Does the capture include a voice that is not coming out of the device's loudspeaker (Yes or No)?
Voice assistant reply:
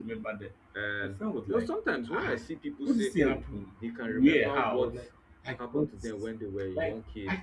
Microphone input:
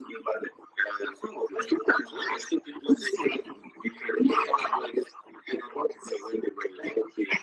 No